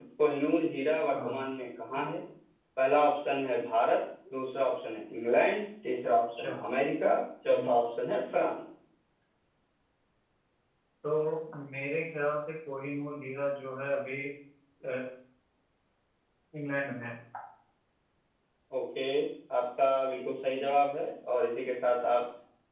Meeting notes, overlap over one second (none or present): none